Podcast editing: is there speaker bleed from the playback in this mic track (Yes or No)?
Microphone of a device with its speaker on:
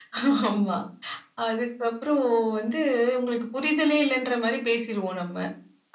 Yes